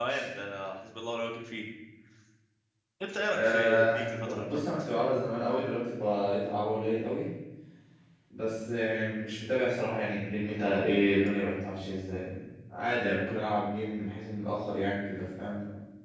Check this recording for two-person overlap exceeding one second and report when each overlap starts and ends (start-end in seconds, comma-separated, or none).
3.3-4.9